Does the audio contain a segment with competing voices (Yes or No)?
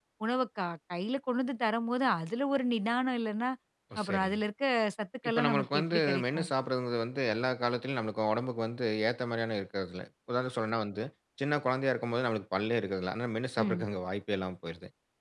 Yes